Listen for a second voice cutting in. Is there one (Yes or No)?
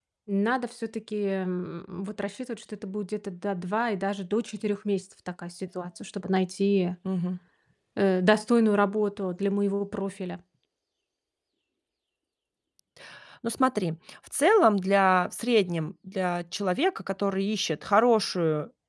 No